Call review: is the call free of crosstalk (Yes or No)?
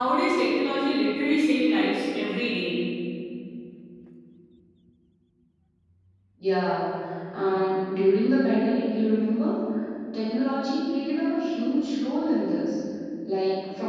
Yes